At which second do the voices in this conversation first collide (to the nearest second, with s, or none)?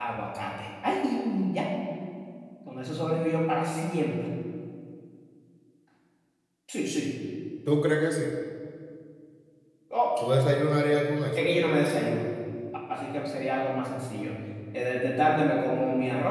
none